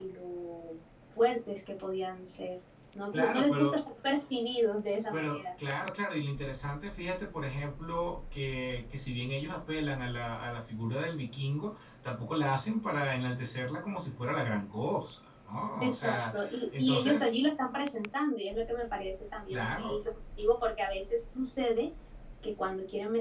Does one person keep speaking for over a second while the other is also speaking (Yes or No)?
Yes